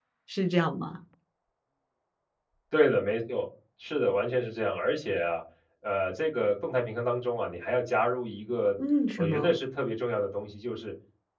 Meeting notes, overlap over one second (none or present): none